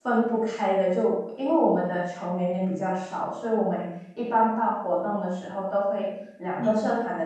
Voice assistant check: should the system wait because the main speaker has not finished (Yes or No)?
Yes